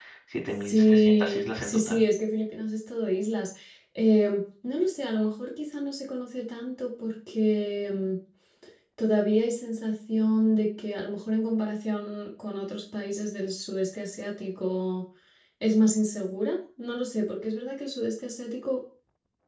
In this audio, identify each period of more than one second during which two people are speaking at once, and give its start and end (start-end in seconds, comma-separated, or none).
0.6-2.0